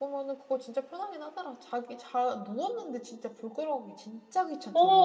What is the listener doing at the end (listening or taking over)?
taking over